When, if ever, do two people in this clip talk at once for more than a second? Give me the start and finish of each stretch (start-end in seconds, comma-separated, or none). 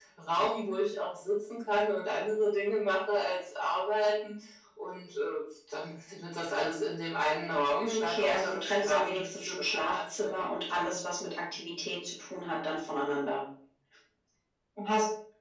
7.8-10.5